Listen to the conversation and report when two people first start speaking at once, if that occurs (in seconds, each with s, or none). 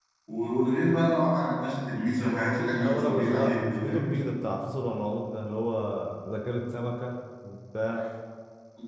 2.8 s